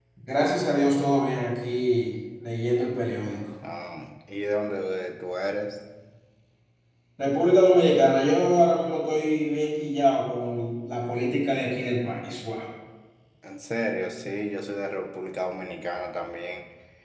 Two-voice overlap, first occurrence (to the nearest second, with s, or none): none